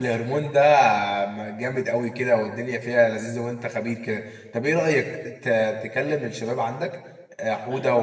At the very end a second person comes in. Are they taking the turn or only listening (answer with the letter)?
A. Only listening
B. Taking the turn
A